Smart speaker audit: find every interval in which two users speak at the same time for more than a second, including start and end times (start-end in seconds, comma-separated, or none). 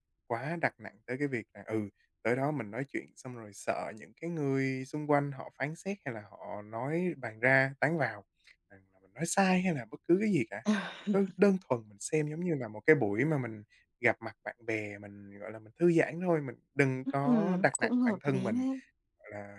17.2-18.6